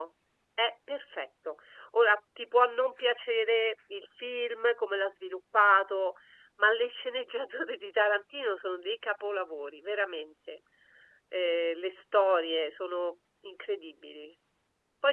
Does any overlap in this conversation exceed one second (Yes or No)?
No